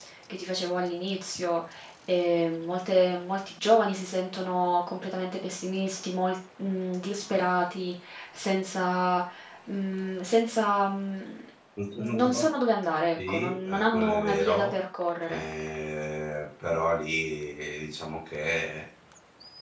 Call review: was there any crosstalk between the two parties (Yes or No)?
Yes